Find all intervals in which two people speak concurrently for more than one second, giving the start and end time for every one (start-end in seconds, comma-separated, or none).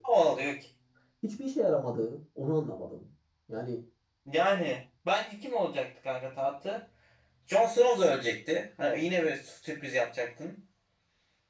none